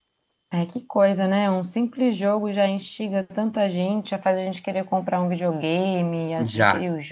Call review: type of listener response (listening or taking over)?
taking over